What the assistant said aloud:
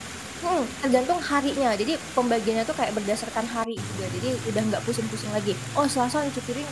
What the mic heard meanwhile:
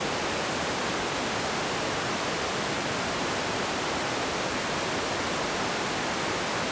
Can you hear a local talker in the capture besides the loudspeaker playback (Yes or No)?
No